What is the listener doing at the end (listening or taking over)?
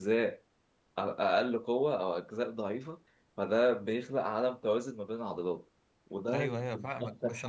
taking over